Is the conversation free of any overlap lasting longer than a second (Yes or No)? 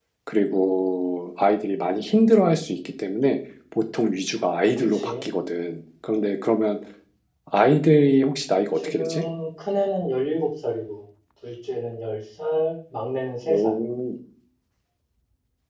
Yes